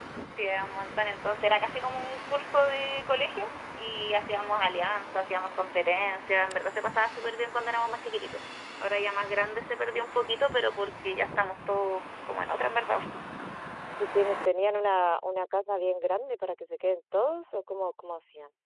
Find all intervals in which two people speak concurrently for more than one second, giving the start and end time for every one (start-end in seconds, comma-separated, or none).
none